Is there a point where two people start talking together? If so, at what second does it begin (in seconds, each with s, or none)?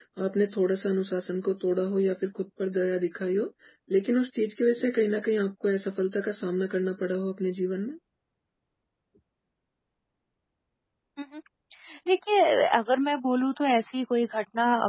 none